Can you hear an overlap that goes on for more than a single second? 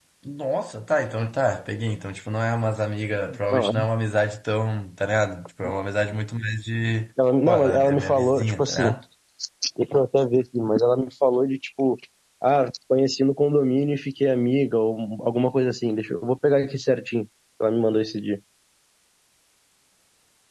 Yes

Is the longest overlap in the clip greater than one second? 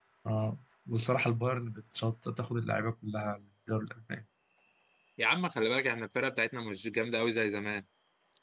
No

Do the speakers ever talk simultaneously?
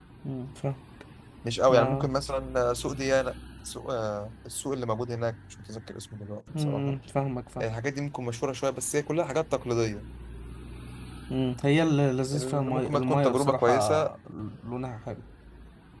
Yes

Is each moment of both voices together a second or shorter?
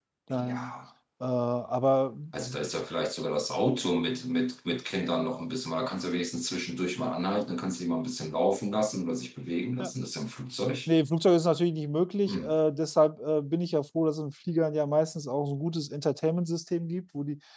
Yes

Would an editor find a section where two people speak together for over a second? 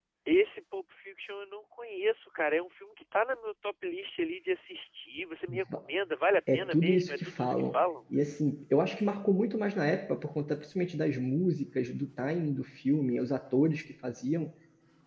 Yes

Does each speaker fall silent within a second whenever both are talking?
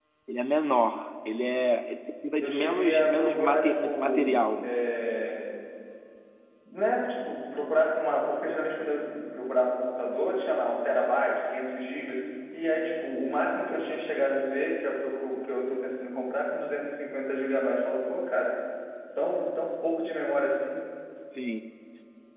No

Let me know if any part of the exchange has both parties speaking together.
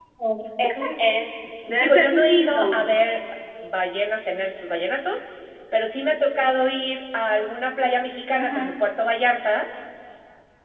Yes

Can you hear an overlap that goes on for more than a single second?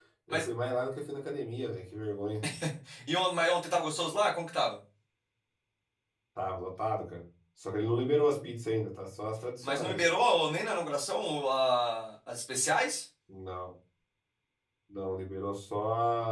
No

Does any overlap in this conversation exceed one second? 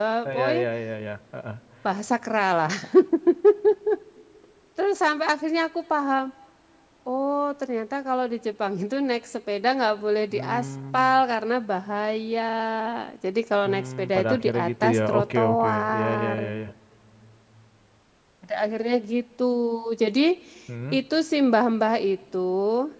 Yes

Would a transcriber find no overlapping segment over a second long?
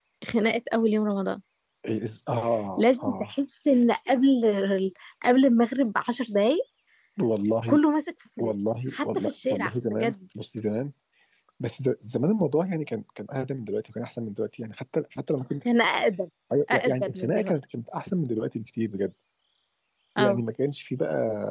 No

